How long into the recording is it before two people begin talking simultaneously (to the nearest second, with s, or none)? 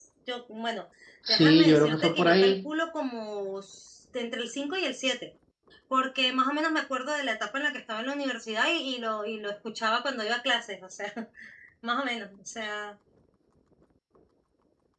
1 s